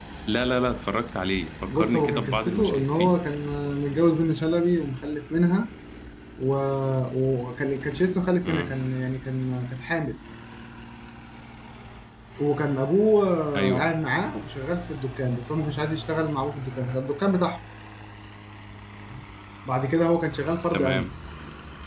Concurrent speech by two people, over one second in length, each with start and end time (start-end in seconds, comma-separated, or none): 1.7-3.2